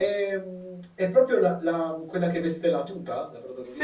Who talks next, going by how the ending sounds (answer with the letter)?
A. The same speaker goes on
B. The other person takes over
B